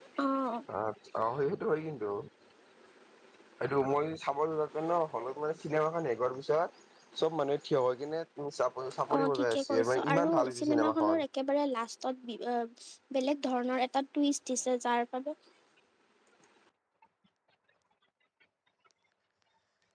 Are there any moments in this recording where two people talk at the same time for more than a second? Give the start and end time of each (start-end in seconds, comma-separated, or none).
9.1-11.2